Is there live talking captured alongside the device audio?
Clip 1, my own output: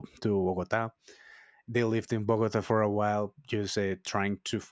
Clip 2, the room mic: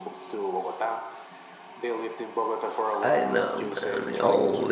Yes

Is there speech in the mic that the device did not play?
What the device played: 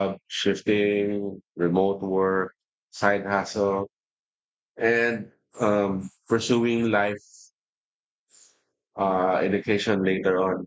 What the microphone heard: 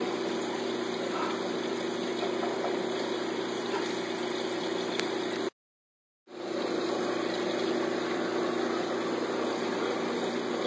No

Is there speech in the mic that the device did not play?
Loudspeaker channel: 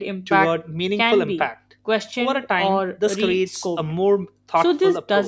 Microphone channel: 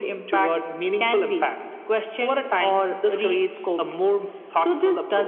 No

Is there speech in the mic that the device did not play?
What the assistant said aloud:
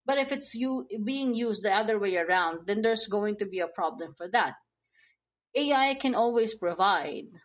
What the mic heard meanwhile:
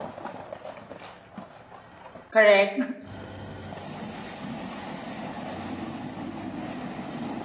Yes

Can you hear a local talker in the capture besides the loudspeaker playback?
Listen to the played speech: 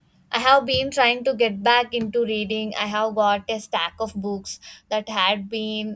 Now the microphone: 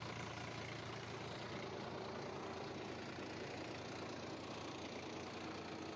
No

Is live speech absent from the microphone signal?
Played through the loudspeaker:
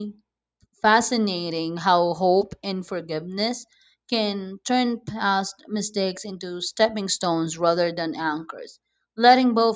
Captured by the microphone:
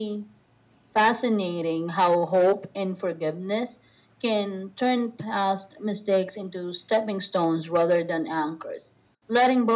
Yes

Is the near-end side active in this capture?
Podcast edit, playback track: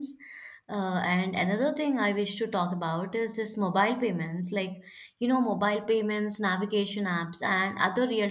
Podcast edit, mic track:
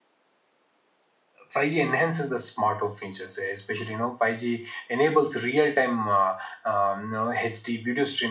Yes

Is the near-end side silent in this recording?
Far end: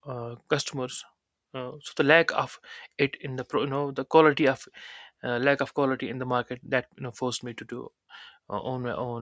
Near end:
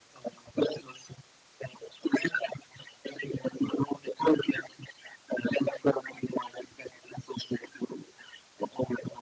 Yes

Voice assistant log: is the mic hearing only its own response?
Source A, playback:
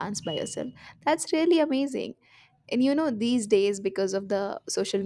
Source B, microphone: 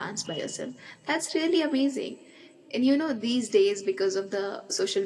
Yes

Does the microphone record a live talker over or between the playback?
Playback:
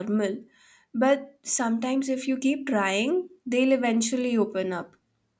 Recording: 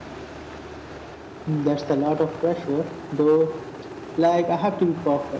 Yes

